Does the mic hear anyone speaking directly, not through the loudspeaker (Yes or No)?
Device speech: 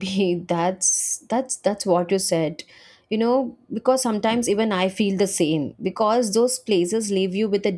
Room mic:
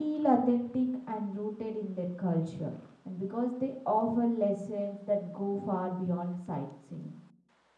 Yes